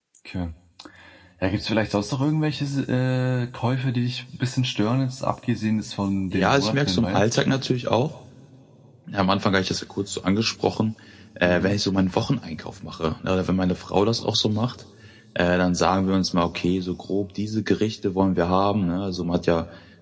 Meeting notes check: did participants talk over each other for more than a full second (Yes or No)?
Yes